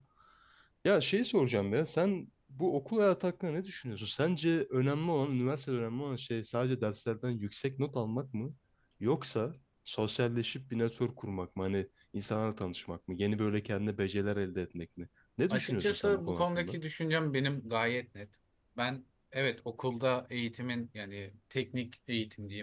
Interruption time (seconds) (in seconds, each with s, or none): 15.5 s